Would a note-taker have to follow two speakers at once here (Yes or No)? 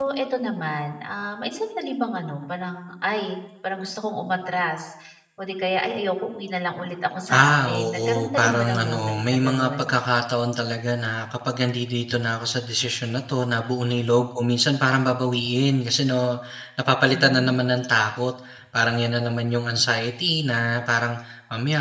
Yes